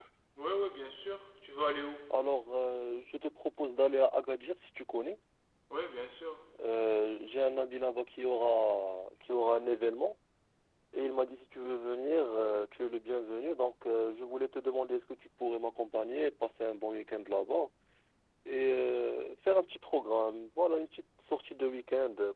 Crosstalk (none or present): none